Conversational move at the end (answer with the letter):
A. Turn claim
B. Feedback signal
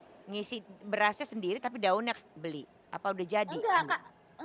A